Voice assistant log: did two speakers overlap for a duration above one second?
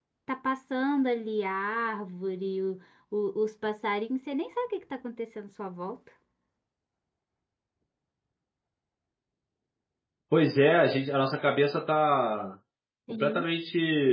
No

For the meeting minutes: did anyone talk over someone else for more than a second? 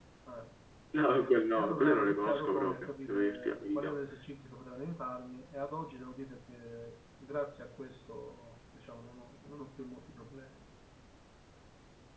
Yes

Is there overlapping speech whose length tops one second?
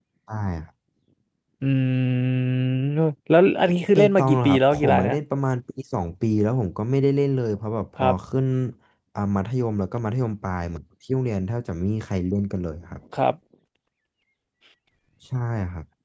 Yes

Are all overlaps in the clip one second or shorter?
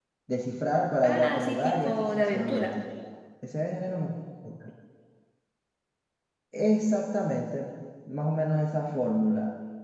No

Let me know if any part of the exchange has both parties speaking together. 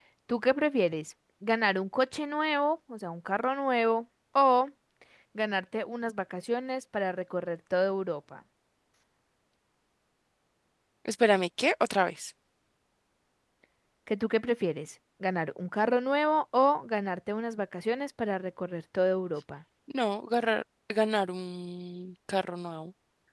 No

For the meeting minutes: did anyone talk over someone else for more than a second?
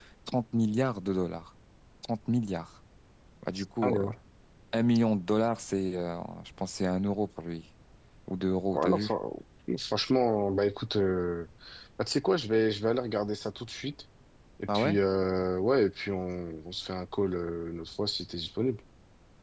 No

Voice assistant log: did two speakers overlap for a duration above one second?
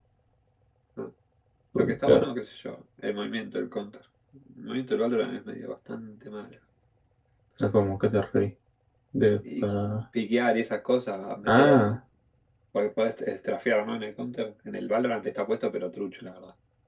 No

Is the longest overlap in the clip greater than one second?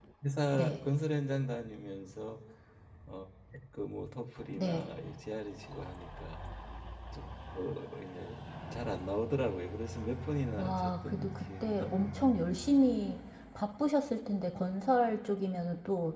Yes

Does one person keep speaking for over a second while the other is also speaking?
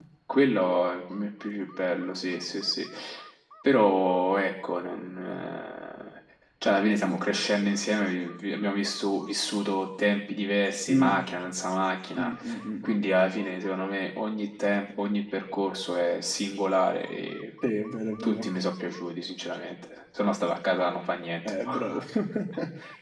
No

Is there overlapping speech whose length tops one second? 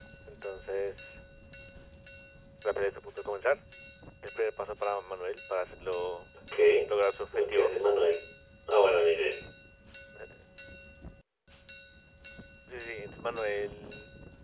No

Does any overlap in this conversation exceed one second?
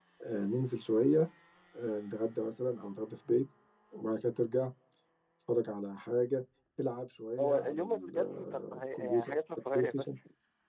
Yes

